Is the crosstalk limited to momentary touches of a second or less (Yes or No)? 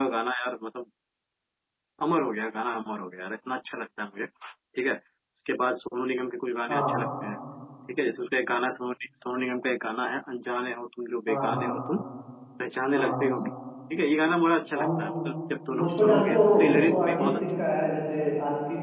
No